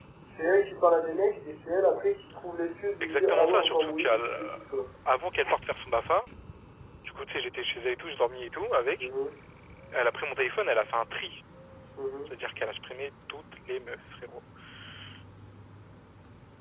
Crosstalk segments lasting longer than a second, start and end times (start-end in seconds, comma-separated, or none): 3.0-4.6